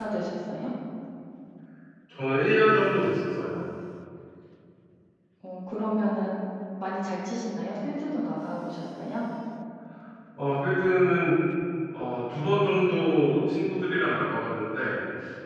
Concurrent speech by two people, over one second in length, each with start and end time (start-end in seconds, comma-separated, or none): none